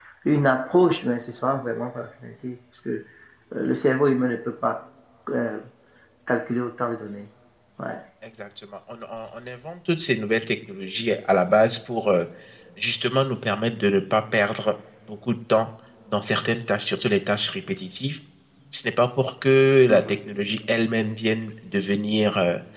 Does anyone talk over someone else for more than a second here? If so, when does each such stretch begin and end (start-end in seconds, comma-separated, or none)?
none